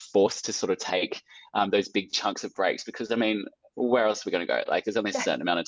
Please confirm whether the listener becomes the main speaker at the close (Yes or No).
No